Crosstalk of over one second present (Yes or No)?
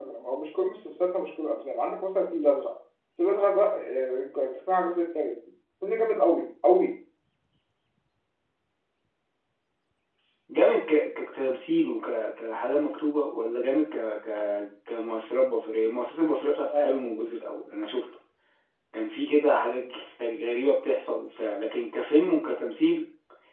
No